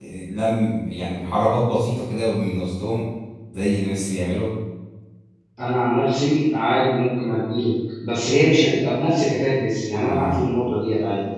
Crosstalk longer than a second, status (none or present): none